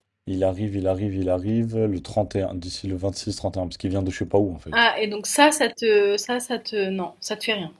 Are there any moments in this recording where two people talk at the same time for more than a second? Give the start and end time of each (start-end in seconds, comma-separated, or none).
none